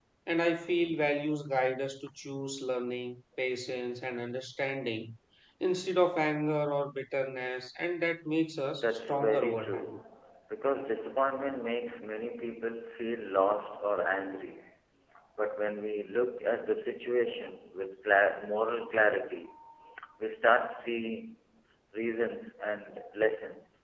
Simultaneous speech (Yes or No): Yes